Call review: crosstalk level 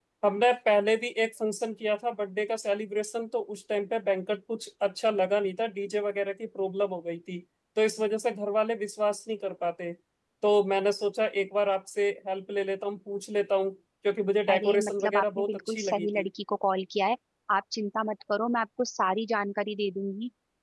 present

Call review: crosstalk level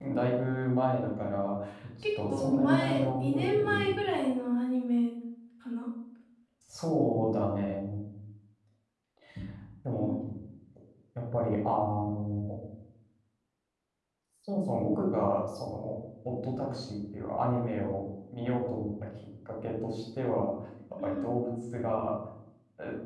present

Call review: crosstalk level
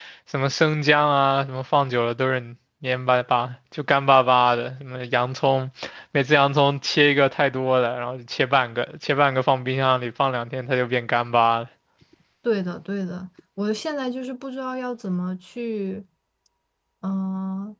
none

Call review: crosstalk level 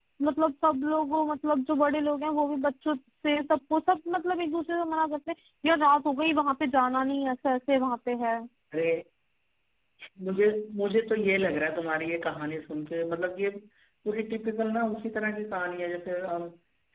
none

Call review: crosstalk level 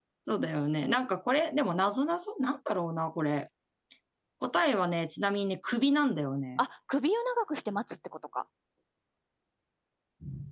none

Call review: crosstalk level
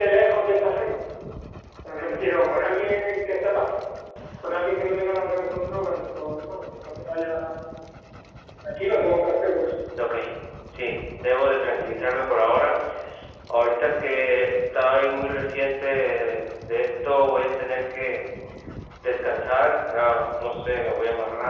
none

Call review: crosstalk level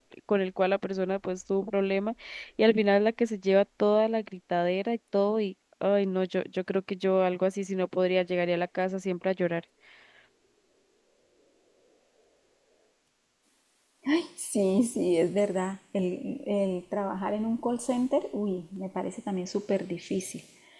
none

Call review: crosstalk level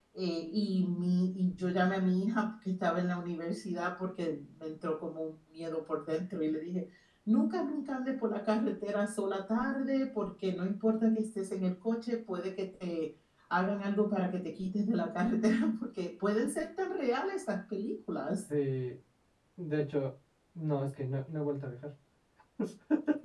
none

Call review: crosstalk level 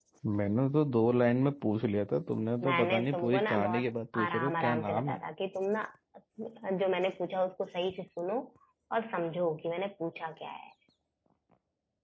present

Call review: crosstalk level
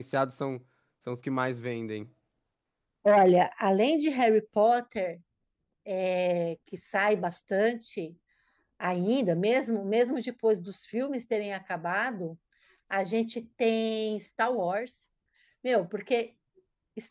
none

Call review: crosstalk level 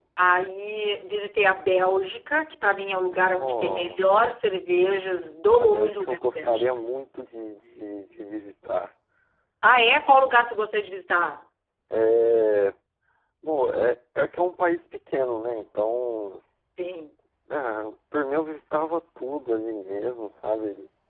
present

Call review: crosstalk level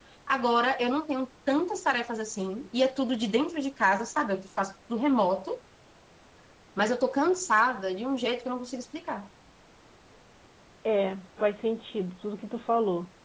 none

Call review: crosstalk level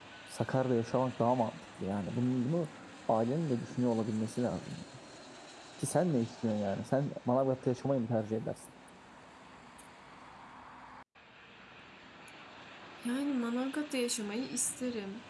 none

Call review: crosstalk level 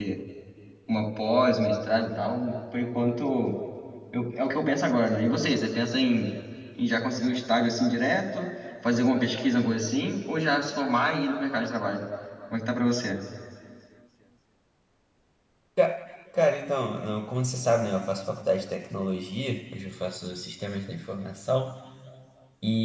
none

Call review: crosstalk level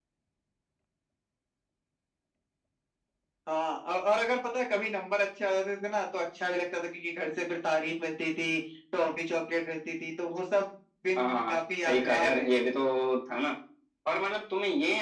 present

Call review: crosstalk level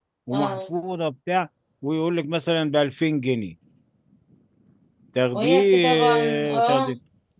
present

